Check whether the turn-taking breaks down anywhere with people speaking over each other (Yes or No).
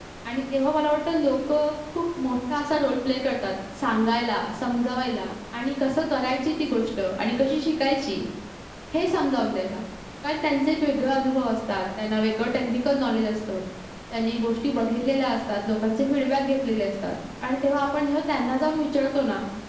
No